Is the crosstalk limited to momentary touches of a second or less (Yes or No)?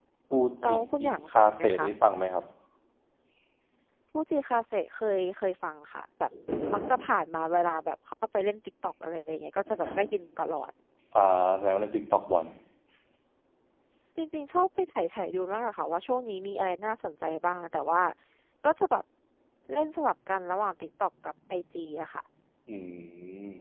No